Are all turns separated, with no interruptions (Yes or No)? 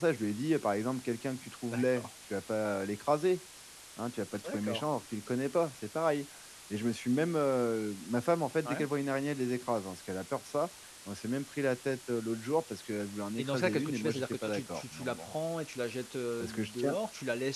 No